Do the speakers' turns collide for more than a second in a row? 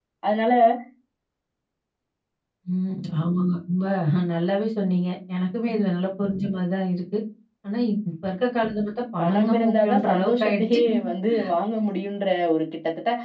Yes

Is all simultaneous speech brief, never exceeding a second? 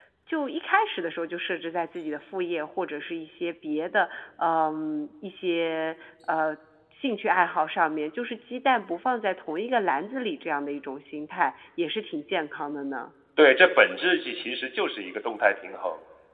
Yes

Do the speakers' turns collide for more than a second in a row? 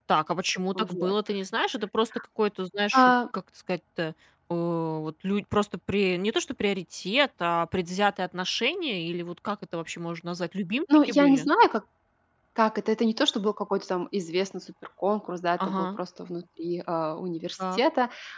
No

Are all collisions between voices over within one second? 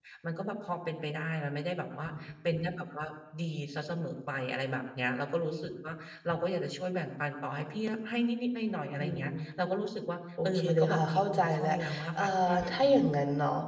No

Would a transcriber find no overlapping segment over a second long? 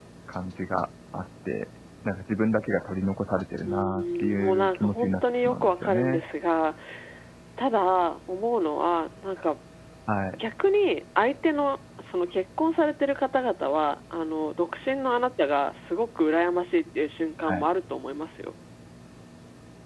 No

